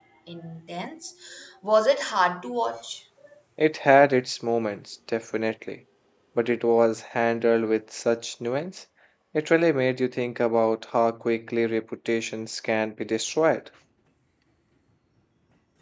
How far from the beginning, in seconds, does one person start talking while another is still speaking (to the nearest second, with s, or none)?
none